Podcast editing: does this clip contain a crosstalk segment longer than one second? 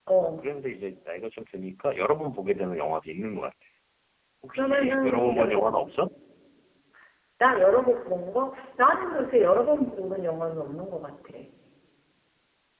Yes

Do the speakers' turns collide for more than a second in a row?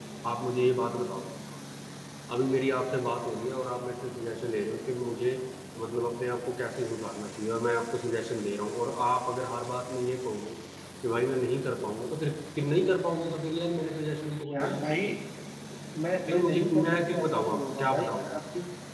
Yes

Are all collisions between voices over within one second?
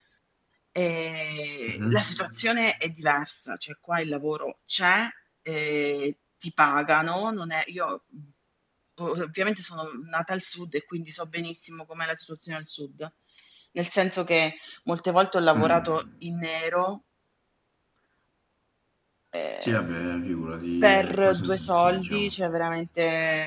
No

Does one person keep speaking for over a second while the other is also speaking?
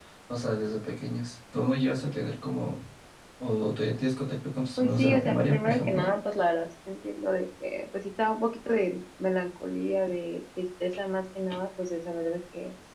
Yes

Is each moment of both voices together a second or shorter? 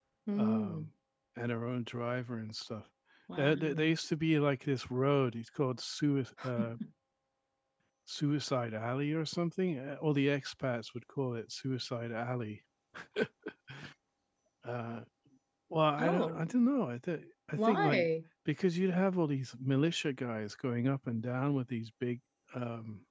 Yes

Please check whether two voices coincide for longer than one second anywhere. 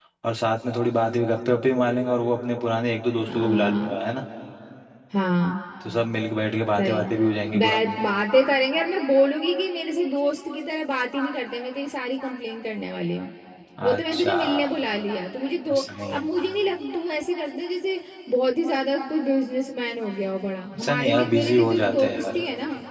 Yes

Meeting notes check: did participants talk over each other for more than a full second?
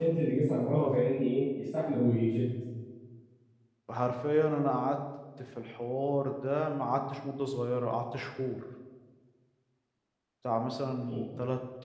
No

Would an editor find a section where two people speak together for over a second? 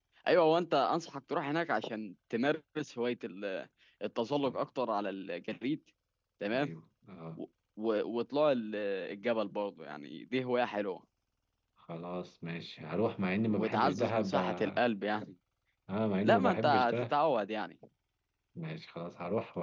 Yes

